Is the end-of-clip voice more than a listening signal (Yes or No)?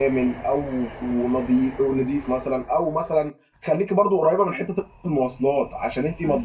No